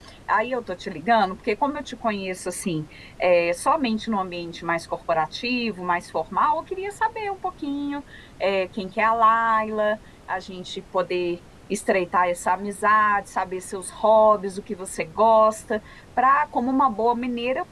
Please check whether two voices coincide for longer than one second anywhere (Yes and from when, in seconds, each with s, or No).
No